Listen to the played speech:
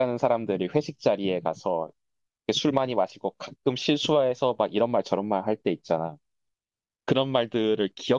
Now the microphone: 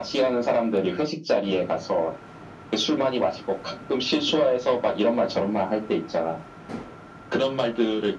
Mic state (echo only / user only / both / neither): echo only